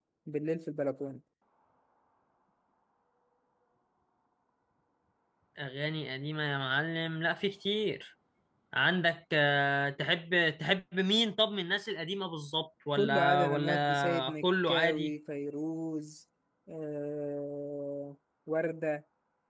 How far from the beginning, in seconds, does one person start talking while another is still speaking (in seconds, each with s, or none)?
12.9 s